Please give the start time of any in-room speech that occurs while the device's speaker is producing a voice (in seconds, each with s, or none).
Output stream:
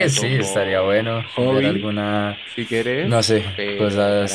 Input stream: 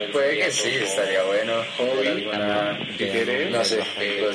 2.0 s